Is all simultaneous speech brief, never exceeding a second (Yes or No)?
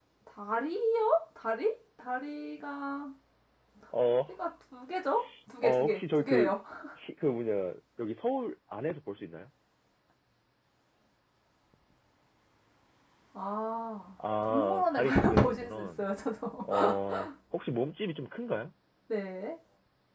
No